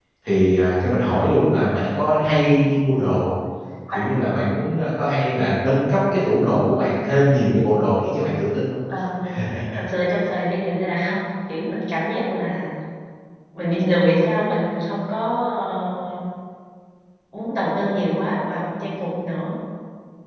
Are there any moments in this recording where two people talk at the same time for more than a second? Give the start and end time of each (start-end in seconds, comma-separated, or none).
none